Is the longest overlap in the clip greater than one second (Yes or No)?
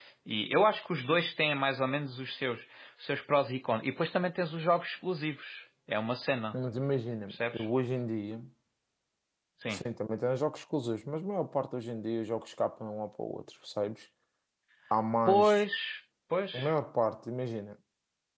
No